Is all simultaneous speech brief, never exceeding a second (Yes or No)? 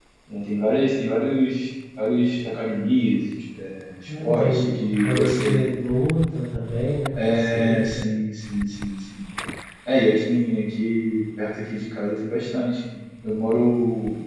No